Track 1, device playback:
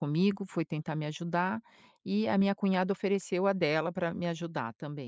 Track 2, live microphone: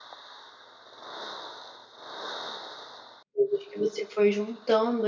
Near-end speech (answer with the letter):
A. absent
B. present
B